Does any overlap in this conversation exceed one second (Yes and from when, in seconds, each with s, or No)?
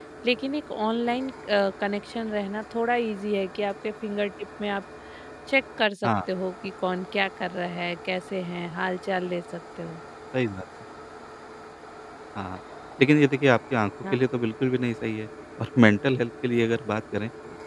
No